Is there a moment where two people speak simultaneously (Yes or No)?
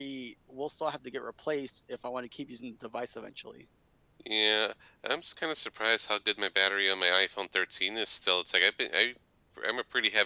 No